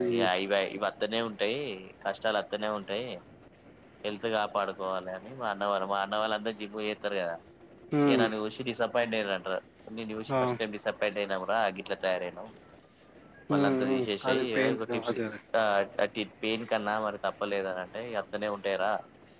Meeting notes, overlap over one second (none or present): present